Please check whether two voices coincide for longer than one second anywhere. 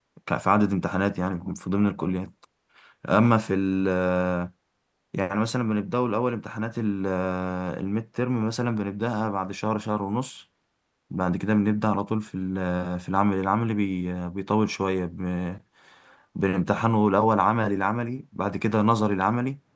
No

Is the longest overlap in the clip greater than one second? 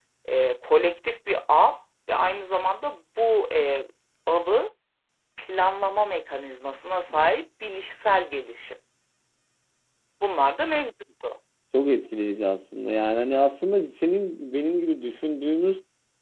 No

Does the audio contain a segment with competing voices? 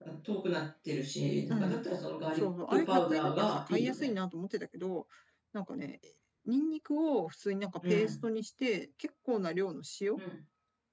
Yes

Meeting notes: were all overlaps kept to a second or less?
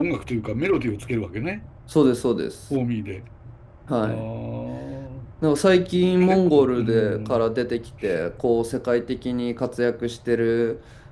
No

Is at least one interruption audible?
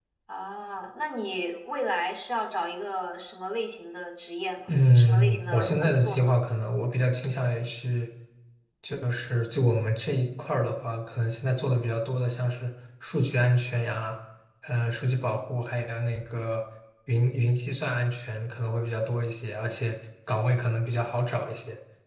Yes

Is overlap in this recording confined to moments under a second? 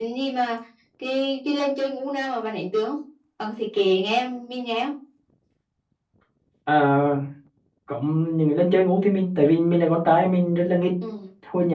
Yes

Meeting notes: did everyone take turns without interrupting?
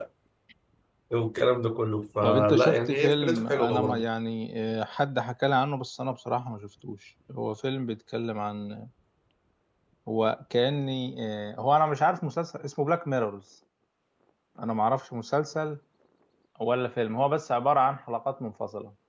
No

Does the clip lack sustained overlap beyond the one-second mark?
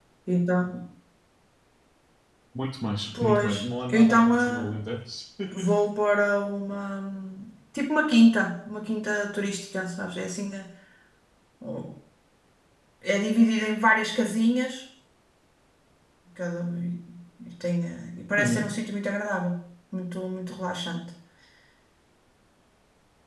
No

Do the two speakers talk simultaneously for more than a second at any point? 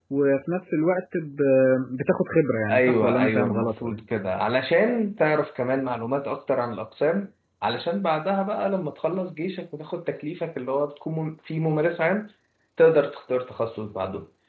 Yes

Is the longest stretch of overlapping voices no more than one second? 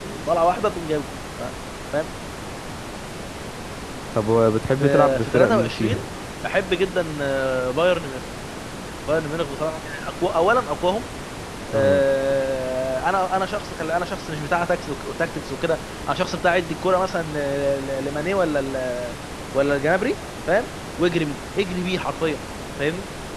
No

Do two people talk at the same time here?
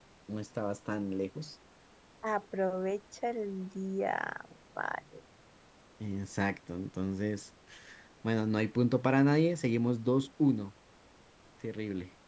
No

